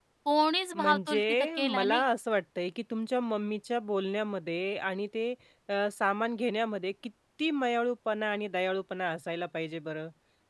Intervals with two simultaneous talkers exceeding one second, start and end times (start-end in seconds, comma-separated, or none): 0.7-2.0